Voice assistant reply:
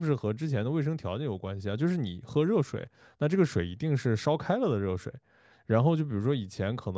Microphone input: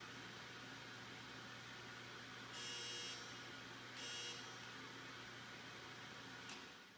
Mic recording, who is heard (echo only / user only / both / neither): neither